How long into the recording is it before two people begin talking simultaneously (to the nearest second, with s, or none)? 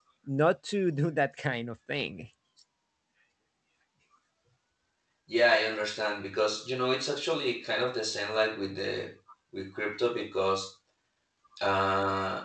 none